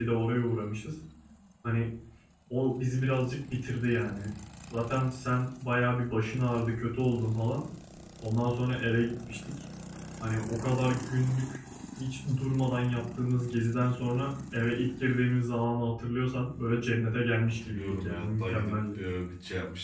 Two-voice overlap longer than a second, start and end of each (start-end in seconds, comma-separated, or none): 17.5-19.0